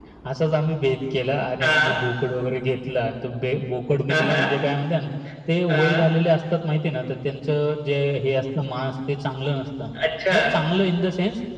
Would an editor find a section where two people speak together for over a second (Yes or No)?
No